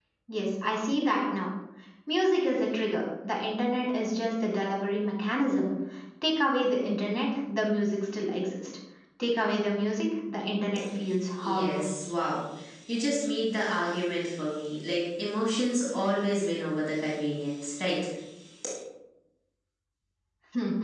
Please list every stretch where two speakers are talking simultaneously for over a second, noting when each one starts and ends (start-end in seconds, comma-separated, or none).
none